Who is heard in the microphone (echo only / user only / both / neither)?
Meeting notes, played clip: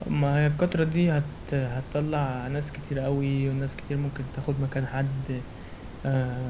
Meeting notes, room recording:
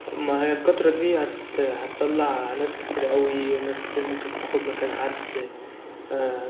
echo only